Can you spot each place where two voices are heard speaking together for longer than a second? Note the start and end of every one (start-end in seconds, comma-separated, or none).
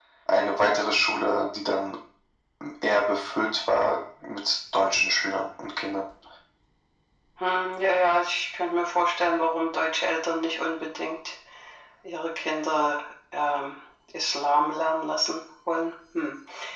none